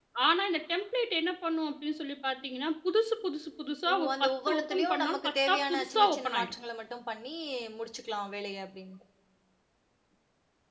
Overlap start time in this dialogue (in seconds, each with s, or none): 3.9 s